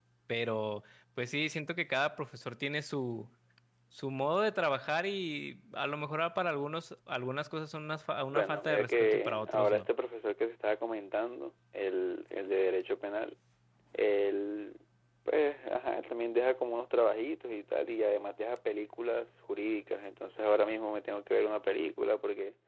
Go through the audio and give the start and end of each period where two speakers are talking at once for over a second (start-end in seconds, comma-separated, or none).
8.3-9.9